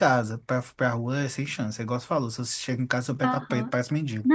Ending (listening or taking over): taking over